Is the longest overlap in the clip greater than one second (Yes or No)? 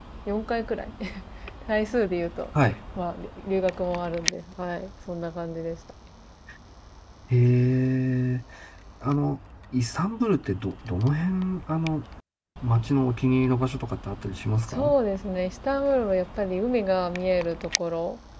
No